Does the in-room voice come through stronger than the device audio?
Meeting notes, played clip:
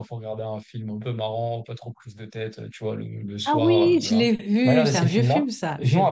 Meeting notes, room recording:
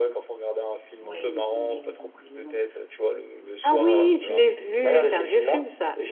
No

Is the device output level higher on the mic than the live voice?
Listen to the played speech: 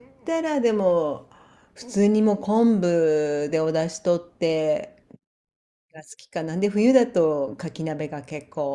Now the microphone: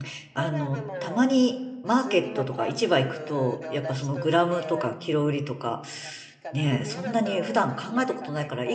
No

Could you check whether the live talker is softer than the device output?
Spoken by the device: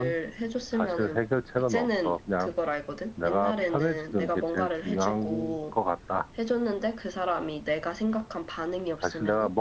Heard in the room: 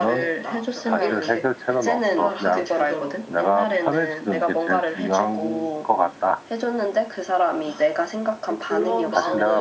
Yes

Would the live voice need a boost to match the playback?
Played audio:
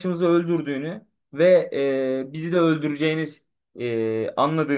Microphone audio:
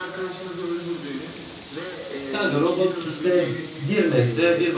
No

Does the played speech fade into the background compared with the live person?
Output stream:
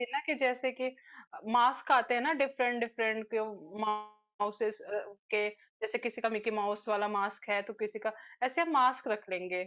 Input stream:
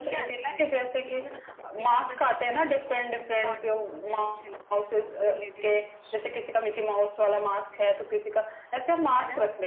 No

